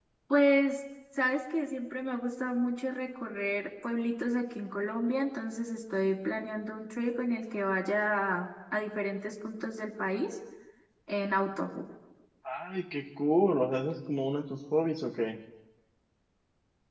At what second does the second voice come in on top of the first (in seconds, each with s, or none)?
none